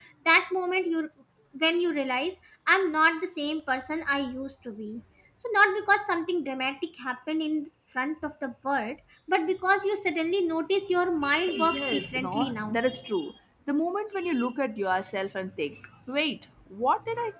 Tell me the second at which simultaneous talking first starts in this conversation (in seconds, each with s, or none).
11.5 s